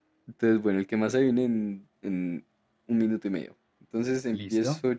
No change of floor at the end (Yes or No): Yes